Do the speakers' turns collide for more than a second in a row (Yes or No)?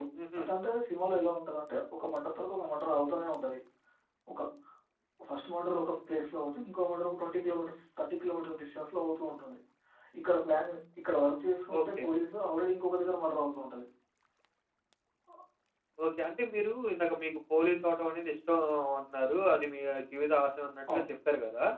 No